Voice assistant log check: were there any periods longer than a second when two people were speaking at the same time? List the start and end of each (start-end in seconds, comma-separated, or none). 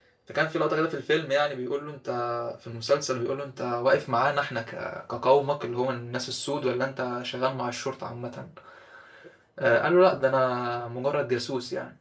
none